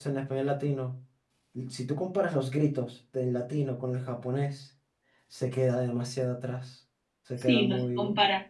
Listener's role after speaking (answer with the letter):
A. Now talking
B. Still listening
A